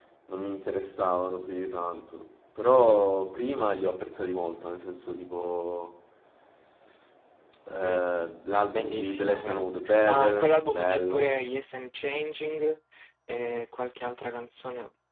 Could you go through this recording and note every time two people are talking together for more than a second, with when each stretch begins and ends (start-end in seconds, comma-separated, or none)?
8.7-11.4